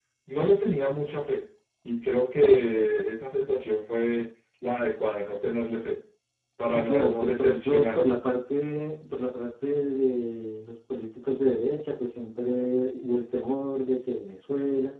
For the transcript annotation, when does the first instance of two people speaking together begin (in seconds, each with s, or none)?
6.6 s